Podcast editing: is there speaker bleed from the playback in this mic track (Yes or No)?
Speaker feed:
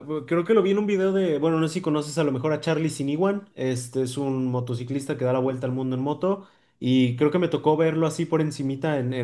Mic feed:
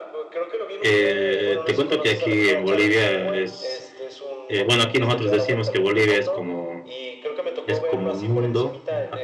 Yes